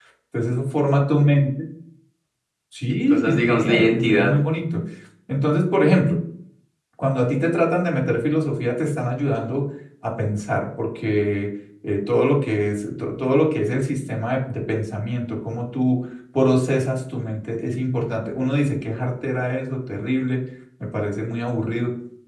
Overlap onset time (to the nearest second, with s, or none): 3 s